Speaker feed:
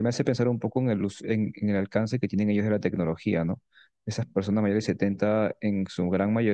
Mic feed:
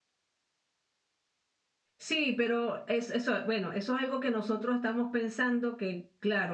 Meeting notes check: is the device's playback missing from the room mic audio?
Yes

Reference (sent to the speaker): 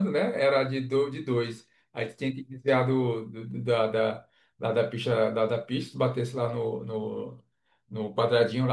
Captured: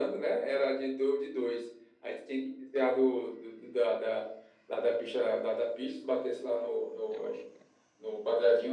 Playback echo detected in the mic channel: Yes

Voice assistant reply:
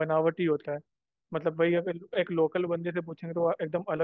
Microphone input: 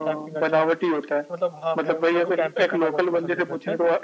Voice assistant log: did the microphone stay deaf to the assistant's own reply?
No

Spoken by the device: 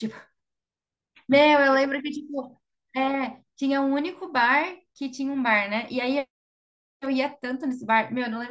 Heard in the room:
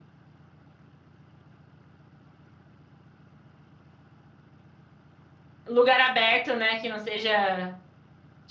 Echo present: No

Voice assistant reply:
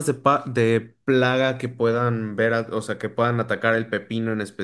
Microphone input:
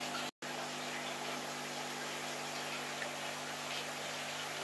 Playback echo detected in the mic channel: No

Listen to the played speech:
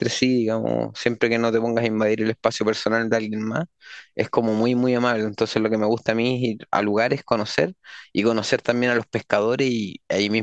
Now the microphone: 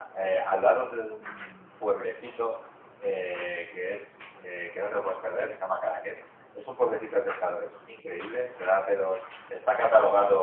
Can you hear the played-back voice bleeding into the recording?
No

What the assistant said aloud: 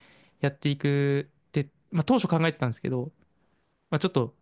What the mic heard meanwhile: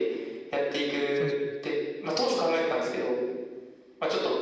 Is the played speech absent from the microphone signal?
No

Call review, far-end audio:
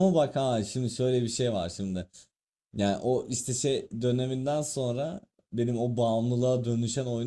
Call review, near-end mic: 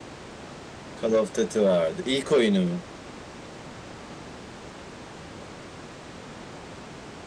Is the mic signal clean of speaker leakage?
Yes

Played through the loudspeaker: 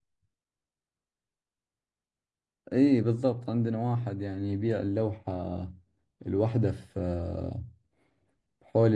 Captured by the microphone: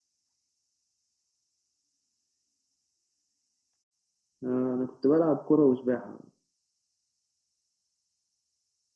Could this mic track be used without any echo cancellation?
Yes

